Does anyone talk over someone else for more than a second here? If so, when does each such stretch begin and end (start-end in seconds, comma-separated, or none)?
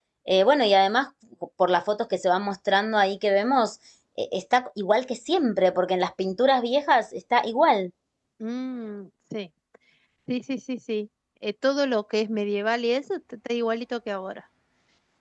none